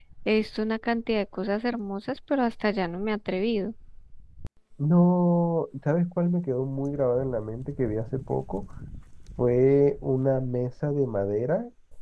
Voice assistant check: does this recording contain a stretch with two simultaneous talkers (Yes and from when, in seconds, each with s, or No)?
No